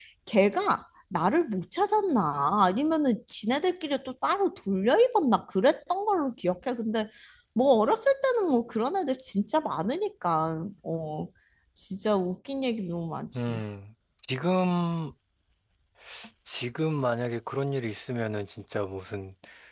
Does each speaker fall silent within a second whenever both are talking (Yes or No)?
Yes